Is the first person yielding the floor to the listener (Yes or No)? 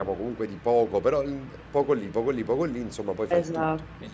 Yes